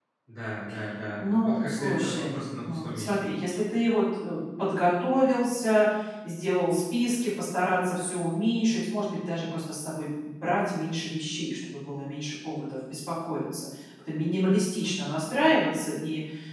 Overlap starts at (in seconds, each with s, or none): 1.2 s